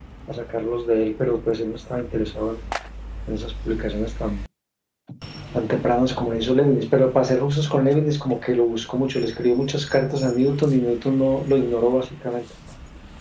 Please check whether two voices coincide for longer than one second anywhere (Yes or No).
No